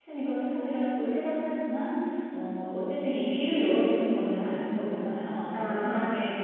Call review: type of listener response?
listening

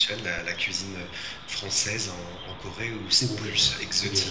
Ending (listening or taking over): taking over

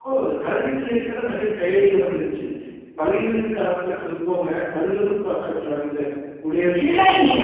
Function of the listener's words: taking over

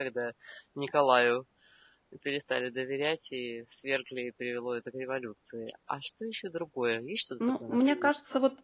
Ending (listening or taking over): taking over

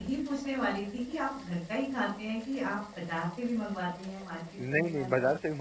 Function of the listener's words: taking over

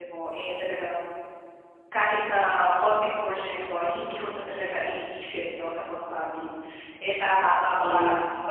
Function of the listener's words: listening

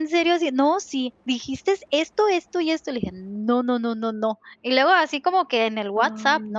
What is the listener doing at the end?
listening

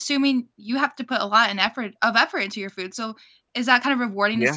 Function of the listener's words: listening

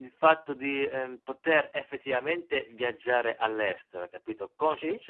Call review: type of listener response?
listening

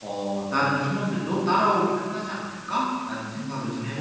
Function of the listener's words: taking over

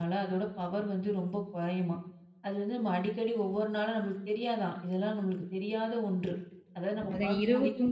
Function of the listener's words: taking over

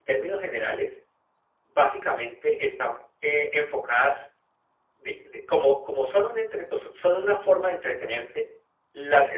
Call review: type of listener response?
listening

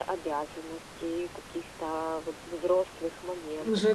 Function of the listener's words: taking over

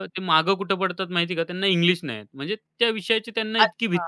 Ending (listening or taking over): taking over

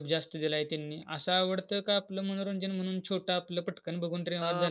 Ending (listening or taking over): taking over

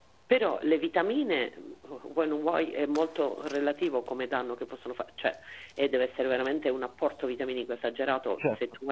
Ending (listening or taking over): listening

